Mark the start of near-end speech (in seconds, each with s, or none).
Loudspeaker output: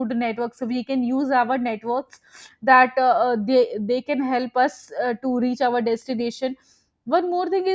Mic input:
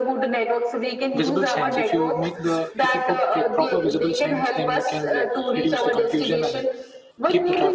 1.1 s